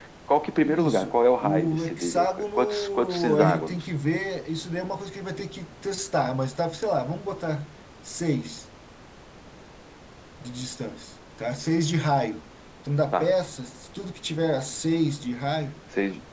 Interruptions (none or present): present